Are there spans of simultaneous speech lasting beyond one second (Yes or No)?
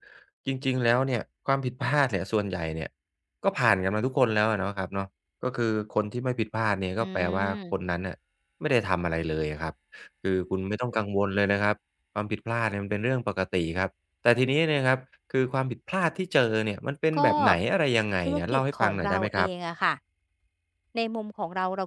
Yes